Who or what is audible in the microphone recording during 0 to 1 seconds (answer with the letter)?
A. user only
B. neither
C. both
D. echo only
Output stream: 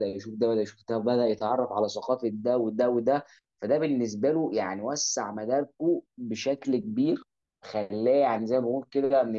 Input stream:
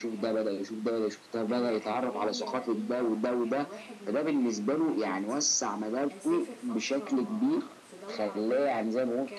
C